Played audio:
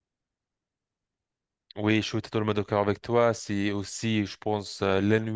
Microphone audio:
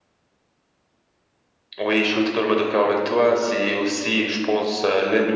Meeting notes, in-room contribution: none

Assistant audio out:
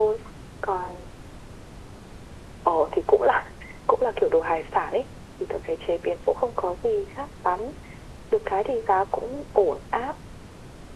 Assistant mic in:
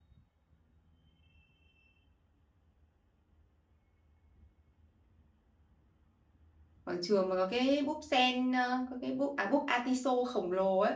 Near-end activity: present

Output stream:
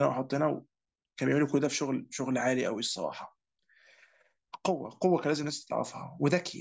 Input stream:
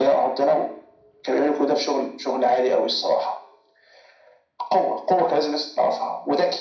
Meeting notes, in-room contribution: none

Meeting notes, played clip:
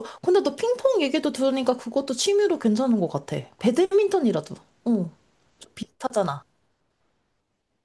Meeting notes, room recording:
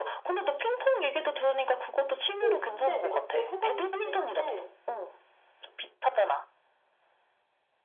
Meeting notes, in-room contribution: present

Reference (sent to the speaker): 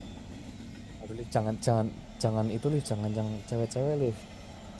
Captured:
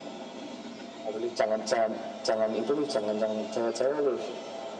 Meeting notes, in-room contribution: none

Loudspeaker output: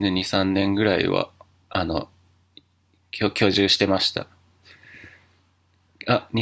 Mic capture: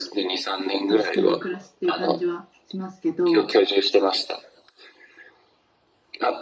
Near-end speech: present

